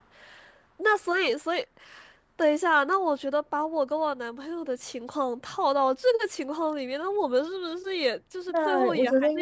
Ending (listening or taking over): taking over